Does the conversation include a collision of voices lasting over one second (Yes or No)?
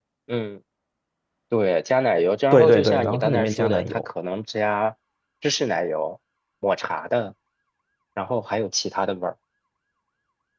Yes